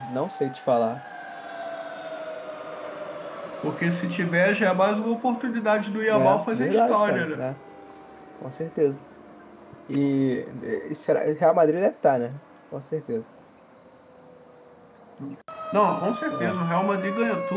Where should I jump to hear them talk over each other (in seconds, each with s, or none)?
6.1 s